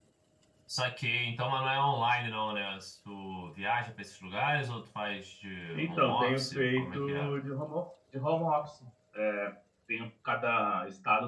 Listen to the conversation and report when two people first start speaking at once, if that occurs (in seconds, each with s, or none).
5.7 s